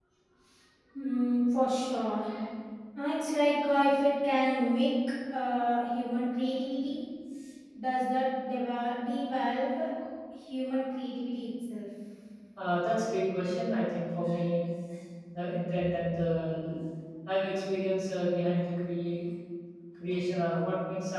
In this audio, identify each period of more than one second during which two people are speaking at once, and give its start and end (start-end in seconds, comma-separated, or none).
none